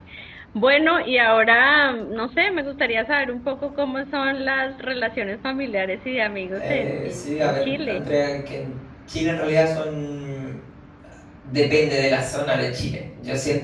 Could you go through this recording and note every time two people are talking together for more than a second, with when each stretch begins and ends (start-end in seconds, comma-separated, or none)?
6.5-8.0